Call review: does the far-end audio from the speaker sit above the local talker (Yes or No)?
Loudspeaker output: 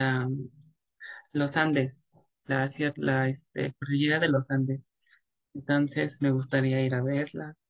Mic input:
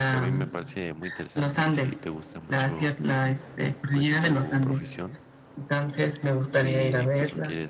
Yes